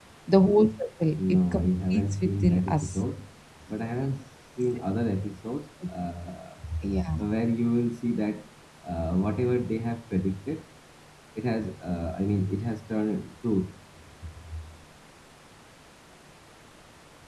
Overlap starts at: 1 s

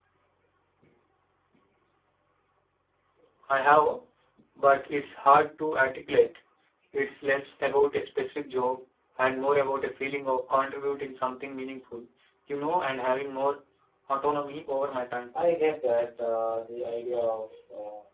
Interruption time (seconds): none

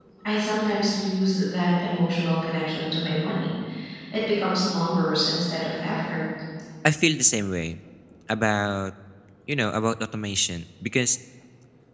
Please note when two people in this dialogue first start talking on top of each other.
none

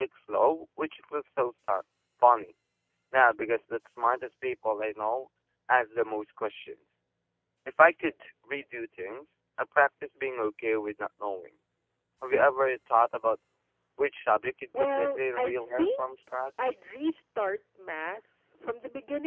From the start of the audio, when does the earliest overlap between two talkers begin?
15 s

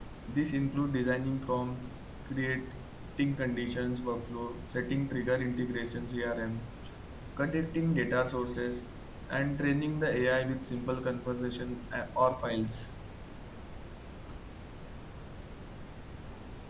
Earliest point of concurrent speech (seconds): none

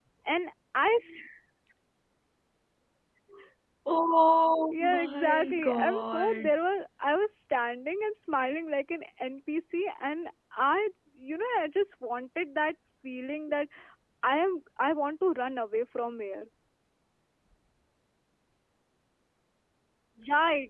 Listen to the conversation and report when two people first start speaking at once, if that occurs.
5 s

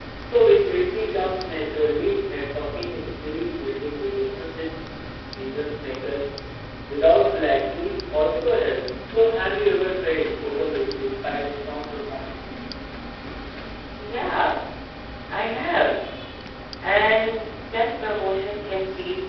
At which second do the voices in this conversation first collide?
none

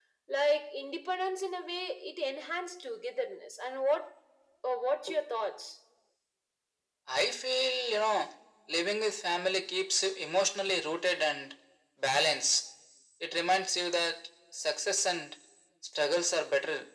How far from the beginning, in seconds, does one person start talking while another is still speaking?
none

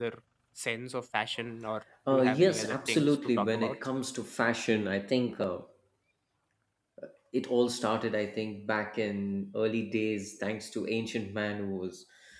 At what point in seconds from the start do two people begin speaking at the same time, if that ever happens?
2 s

